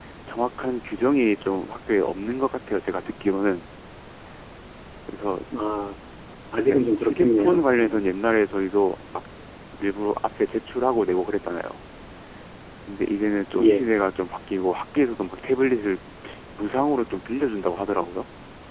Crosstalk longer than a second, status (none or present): present